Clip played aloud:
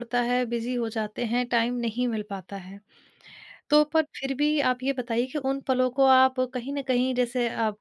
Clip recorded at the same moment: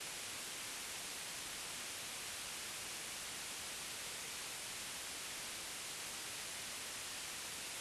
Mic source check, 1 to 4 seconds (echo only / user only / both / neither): neither